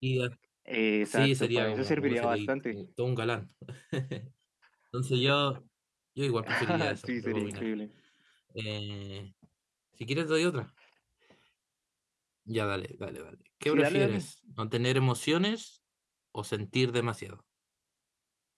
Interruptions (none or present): present